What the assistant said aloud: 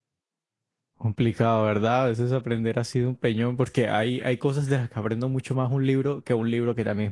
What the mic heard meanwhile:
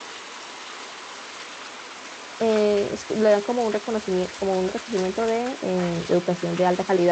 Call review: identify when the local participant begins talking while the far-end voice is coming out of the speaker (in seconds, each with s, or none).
2.4 s